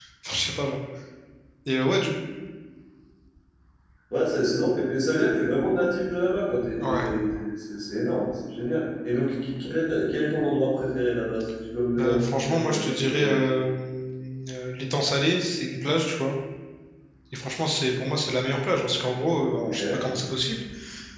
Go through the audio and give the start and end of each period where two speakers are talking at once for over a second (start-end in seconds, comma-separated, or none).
12.0-13.4